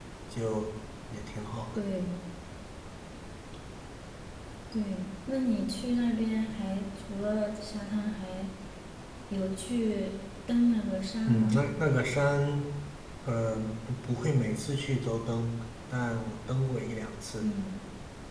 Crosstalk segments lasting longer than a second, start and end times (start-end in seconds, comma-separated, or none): none